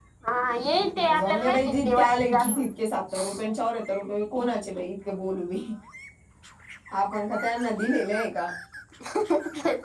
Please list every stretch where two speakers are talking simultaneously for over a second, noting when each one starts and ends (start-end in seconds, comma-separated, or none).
0.9-2.7